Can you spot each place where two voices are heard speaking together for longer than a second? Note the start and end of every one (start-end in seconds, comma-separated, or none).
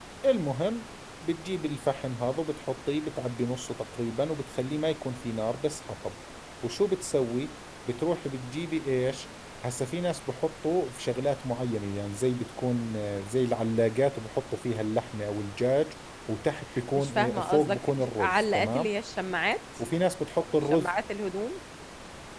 16.9-18.9